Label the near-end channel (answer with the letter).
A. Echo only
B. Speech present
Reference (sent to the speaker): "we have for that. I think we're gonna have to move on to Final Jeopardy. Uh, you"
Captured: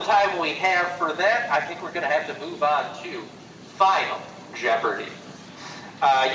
A